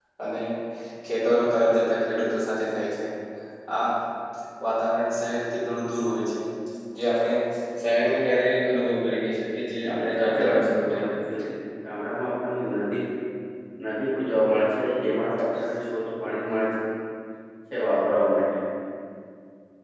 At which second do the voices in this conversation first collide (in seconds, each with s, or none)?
9.8 s